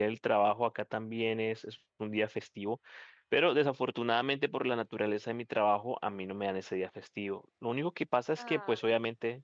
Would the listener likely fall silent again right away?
Yes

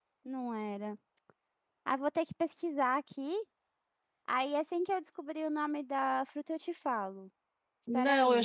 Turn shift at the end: Yes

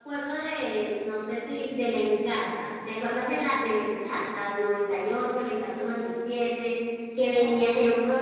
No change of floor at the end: Yes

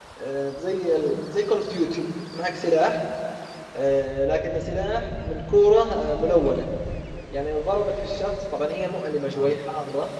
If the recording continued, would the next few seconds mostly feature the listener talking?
No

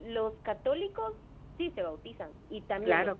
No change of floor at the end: No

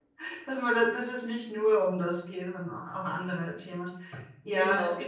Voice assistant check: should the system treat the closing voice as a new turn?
No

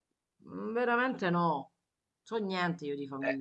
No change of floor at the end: No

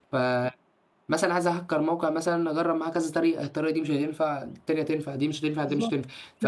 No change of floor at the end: Yes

